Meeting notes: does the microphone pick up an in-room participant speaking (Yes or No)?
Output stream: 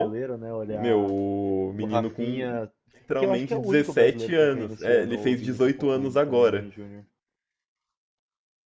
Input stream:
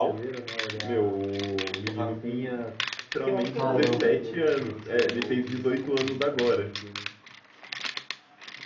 Yes